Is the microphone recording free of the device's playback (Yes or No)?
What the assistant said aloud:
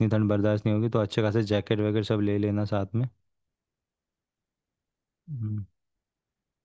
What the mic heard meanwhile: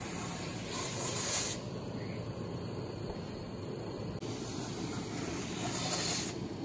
Yes